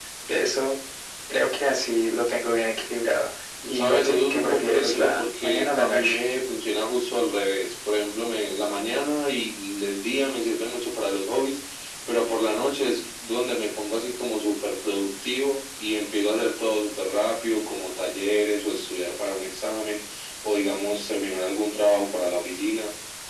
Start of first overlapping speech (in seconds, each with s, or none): 3.6 s